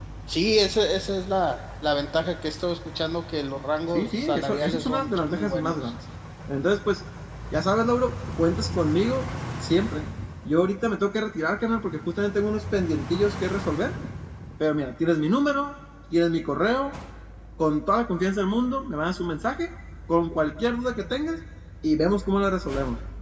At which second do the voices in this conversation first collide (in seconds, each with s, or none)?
3.9 s